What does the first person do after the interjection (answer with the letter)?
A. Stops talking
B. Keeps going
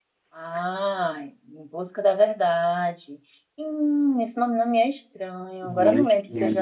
B